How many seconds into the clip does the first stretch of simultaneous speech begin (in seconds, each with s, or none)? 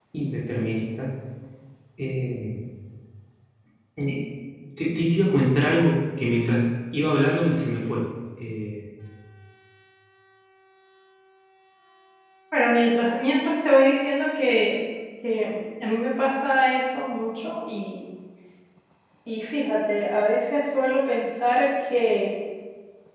none